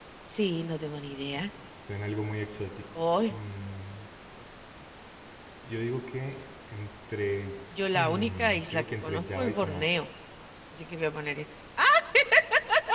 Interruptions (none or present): present